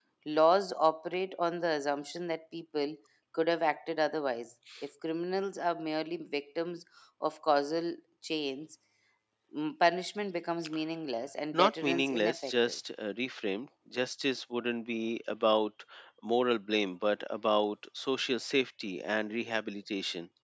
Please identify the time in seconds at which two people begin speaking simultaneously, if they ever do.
11.5 s

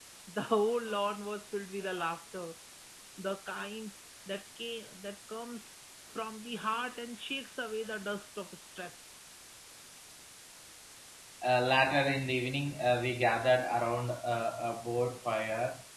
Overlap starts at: none

